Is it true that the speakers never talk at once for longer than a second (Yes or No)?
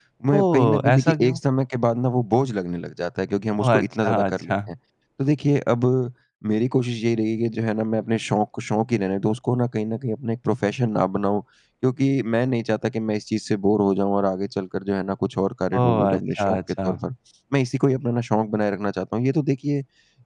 No